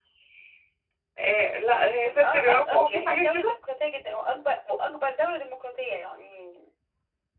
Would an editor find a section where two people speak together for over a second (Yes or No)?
Yes